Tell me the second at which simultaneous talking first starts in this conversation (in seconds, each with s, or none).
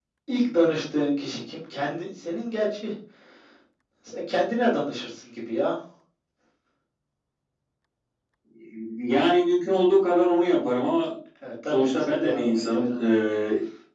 11.7 s